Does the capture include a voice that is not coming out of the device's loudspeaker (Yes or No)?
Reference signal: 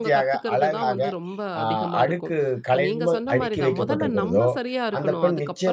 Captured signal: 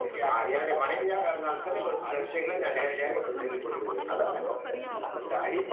Yes